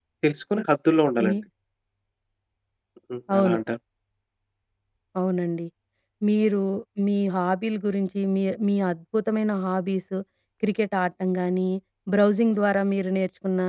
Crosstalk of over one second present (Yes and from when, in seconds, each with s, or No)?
No